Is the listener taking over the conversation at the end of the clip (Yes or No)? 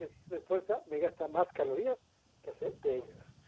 Yes